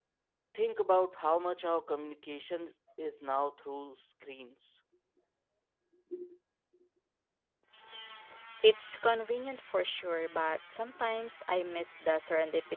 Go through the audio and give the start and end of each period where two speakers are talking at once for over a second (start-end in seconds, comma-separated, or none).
none